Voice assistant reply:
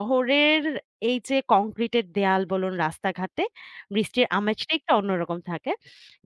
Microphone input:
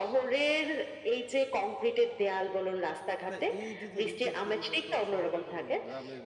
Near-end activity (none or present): present